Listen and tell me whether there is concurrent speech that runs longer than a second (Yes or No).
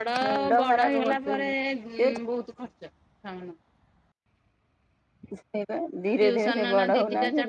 Yes